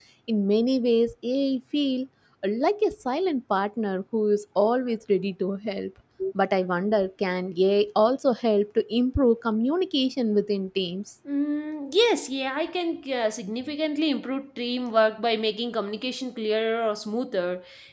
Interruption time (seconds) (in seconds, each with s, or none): none